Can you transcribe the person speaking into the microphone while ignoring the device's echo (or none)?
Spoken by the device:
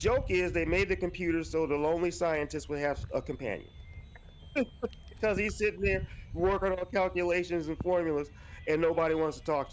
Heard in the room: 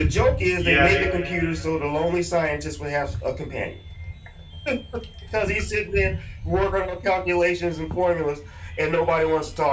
Yeah,